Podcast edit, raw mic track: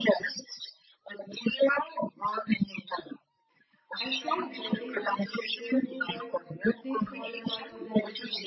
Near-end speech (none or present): present